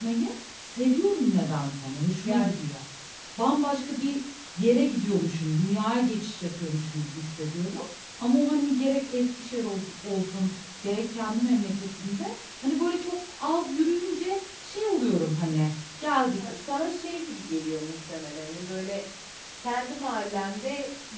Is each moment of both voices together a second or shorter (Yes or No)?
Yes